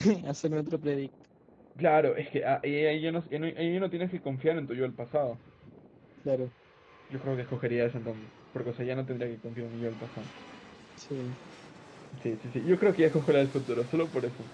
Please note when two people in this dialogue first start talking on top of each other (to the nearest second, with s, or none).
none